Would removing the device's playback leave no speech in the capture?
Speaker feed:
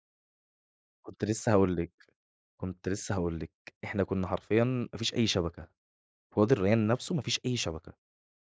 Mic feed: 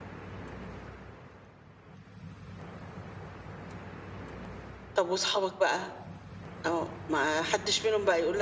No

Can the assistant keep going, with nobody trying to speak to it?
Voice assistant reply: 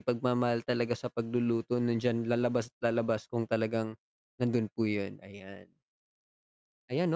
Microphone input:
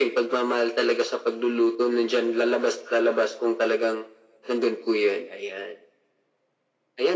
Yes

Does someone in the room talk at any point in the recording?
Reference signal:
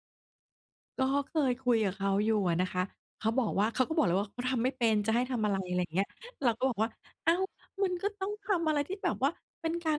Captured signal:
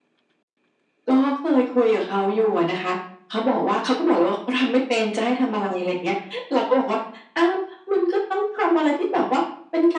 No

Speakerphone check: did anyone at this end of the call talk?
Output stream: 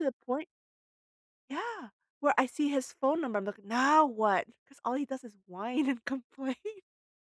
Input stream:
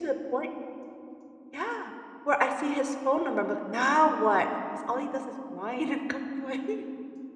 No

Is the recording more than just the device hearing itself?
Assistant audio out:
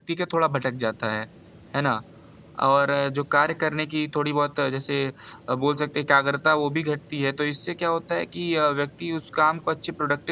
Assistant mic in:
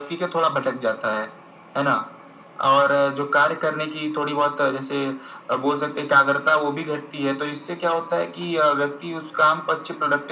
No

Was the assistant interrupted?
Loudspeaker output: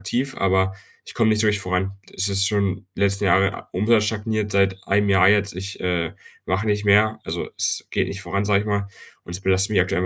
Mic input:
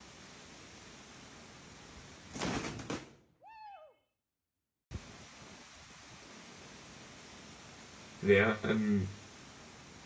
Yes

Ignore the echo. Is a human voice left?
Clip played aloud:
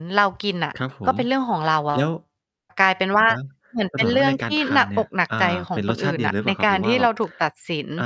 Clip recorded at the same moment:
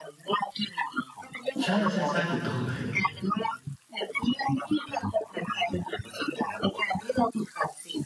Yes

